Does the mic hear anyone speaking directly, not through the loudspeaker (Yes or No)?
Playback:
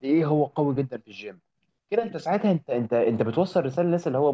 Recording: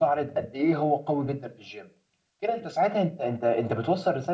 No